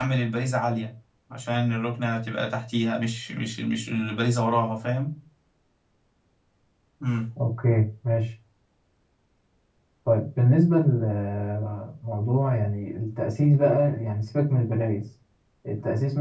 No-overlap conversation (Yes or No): Yes